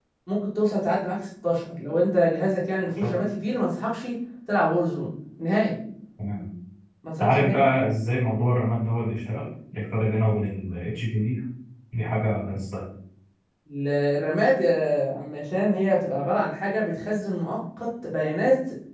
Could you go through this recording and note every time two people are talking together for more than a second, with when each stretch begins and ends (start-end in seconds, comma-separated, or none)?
none